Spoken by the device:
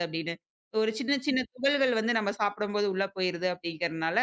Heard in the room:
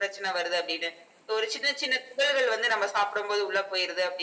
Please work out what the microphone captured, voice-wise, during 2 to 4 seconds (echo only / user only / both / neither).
echo only